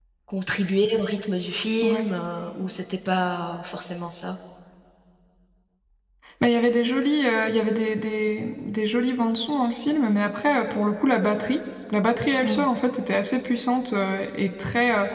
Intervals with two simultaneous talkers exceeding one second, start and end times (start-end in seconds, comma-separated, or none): none